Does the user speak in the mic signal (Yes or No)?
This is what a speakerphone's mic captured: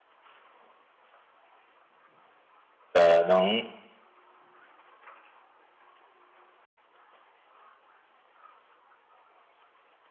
Yes